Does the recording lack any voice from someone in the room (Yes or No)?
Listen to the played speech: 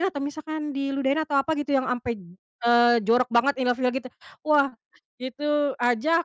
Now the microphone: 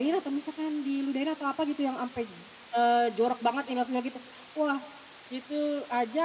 Yes